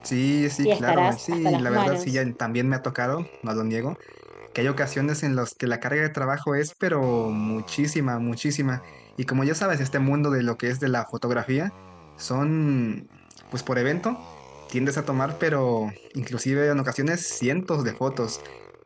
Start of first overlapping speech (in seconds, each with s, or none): 0.6 s